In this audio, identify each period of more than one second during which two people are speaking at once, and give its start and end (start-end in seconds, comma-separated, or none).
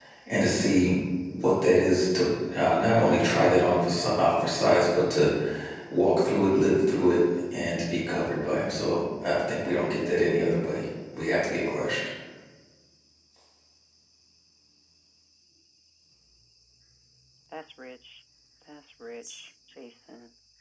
none